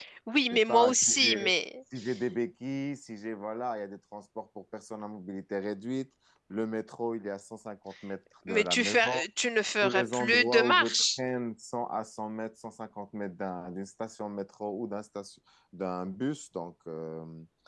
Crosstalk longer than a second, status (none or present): present